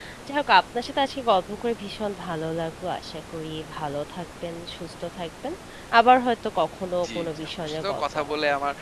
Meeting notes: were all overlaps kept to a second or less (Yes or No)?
No